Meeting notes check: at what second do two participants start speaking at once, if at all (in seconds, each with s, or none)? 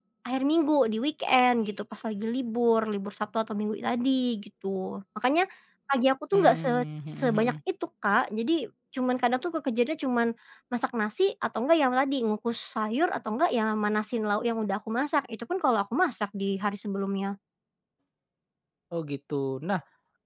6.3 s